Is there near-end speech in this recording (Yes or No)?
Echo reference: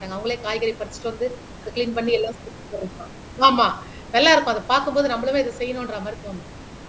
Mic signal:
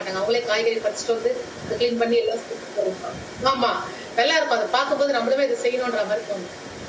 No